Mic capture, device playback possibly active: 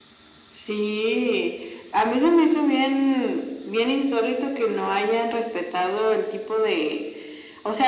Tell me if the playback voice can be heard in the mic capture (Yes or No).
Yes